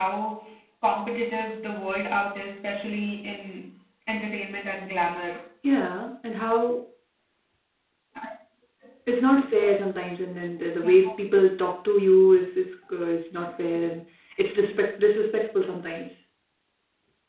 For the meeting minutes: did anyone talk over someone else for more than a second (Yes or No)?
No